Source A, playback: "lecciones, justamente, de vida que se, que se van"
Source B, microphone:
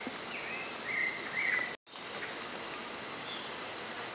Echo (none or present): none